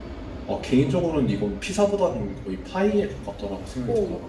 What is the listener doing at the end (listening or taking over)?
taking over